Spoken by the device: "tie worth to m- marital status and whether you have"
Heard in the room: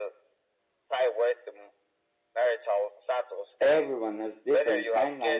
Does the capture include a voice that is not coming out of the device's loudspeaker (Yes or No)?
Yes